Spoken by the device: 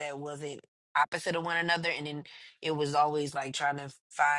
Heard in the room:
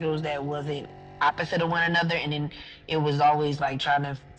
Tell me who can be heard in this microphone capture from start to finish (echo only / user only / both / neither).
echo only